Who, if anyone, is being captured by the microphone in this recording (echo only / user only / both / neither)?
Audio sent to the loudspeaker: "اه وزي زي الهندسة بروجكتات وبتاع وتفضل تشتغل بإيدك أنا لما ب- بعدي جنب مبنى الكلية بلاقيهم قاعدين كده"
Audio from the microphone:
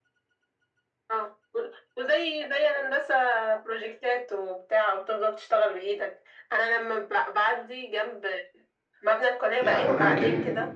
both